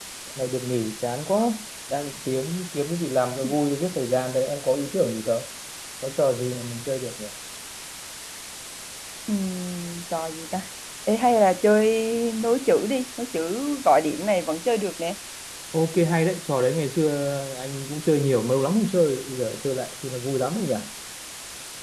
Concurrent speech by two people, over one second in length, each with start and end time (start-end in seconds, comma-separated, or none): none